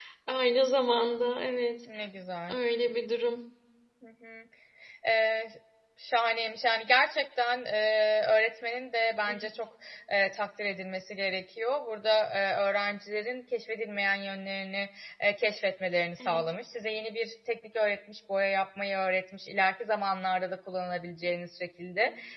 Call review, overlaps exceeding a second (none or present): none